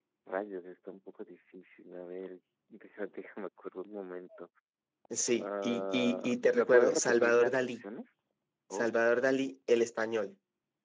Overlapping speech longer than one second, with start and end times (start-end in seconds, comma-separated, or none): 5.3-7.8